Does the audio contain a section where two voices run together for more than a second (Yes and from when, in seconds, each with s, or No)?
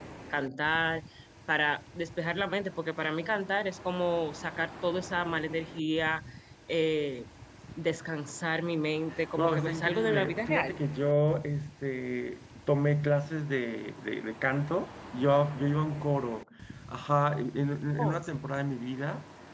Yes, from 9.1 s